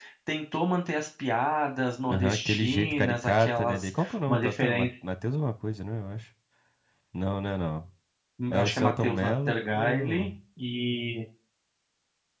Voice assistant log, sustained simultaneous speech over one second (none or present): present